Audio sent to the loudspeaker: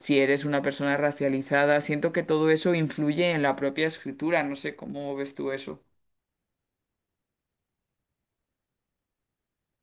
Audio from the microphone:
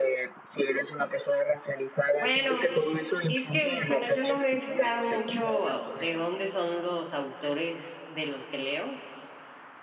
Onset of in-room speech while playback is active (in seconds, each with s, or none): 2.2 s